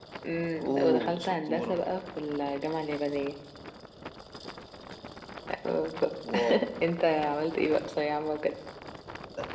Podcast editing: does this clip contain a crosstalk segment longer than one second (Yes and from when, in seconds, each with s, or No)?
Yes, from 0.6 s